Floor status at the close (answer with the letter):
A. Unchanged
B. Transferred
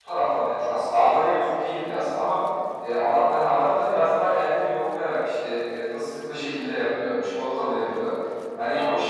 A